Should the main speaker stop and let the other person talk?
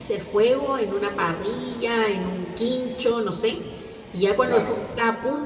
No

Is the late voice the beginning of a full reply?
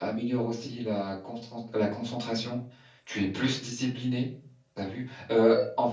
No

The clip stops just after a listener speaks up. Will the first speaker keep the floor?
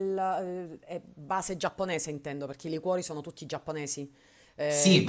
No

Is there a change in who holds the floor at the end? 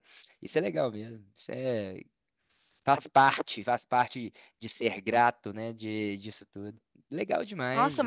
Yes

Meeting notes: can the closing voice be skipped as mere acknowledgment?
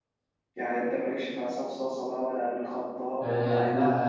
No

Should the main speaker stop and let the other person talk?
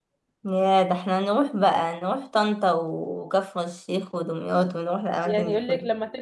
Yes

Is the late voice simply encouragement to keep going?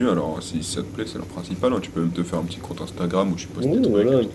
No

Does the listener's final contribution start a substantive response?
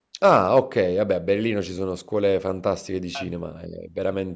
No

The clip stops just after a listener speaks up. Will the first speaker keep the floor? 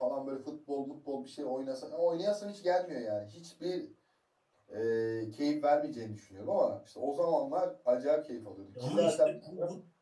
No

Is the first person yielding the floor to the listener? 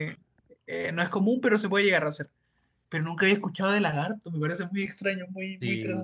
Yes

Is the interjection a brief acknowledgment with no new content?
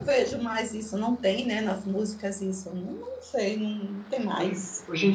No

